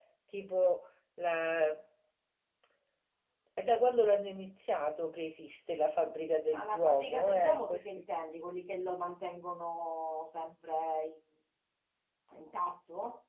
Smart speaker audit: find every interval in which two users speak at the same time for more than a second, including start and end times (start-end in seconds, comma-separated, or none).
6.5-8.0